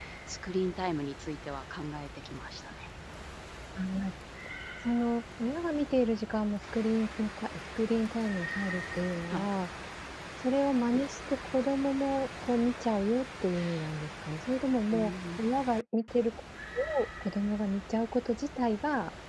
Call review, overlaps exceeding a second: none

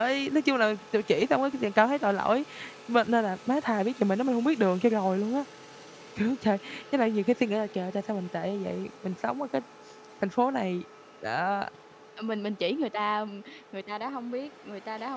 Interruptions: none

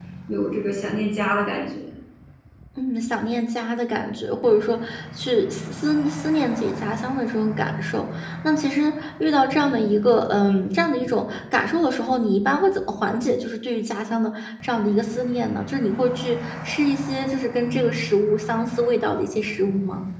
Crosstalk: none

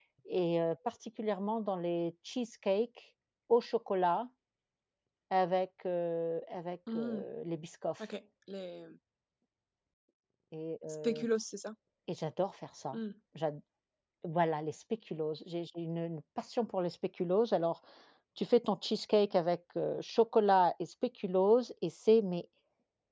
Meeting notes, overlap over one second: none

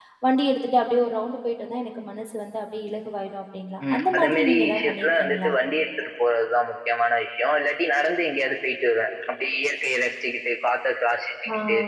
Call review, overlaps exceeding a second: present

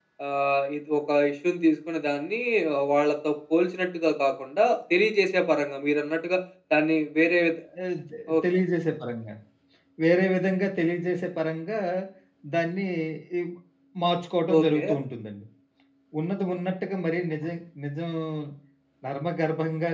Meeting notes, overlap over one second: none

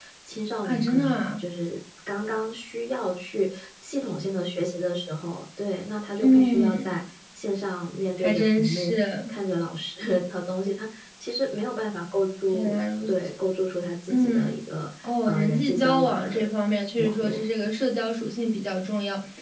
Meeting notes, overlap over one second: present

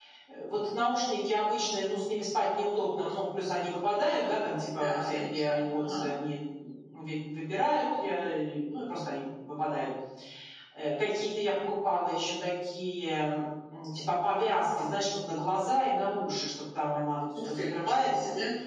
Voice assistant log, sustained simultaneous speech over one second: present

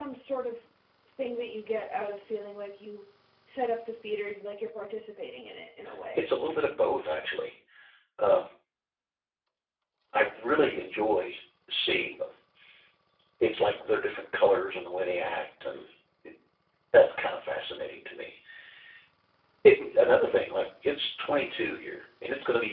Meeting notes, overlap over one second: none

